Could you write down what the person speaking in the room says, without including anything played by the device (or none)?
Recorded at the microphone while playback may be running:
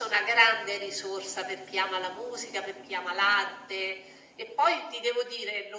none